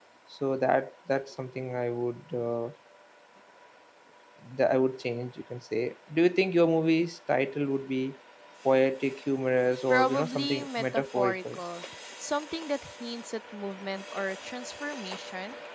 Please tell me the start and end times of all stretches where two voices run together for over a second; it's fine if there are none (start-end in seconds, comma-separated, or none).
9.9-11.6